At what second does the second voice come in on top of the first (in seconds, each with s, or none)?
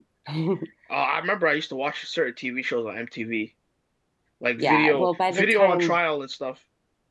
4.6 s